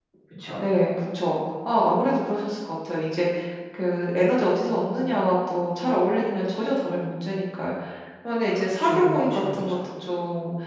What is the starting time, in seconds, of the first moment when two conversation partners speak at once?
8.5 s

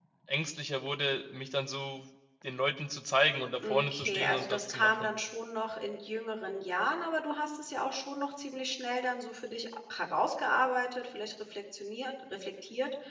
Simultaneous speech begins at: 3.6 s

